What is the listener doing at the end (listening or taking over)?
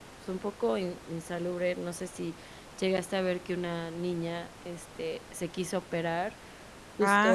listening